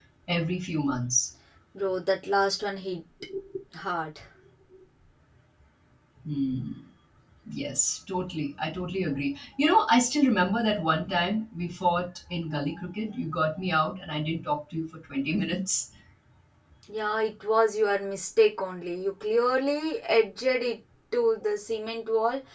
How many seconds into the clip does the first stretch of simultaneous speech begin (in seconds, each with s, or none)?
none